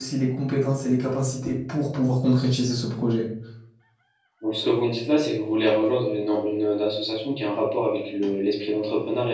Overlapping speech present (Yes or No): No